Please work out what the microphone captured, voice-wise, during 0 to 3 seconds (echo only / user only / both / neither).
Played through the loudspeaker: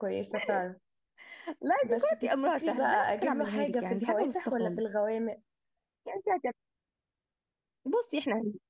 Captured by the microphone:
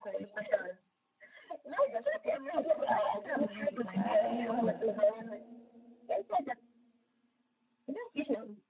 echo only